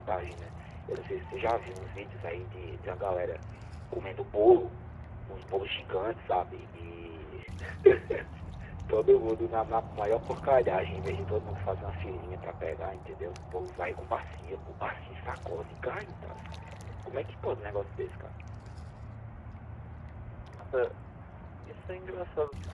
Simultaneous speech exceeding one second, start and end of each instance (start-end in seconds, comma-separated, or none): none